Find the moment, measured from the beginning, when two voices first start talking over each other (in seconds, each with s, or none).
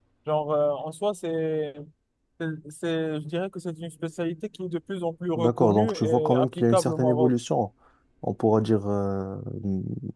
5.3 s